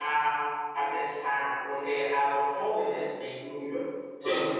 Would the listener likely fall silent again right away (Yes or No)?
Yes